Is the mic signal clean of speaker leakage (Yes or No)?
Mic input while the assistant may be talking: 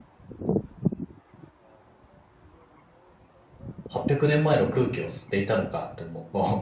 Yes